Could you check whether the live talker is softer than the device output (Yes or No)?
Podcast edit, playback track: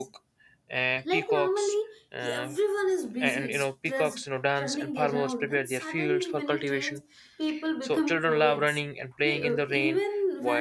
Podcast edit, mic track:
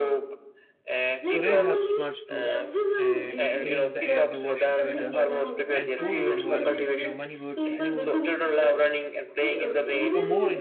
Yes